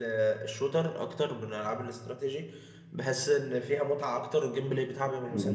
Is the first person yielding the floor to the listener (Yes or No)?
No